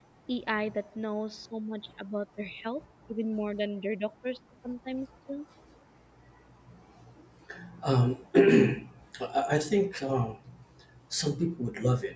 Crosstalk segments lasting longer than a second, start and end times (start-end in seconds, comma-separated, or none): none